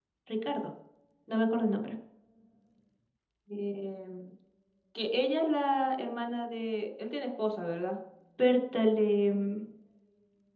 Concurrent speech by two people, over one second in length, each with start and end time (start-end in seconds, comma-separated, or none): none